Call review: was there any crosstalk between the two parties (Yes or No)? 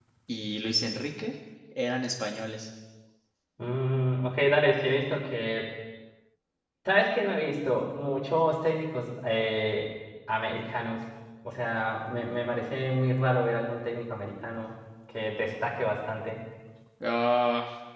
No